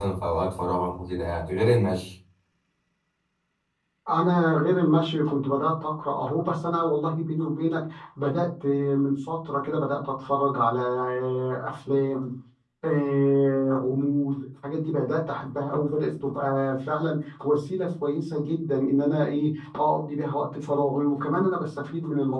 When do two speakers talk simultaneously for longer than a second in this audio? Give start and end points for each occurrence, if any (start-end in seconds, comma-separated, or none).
none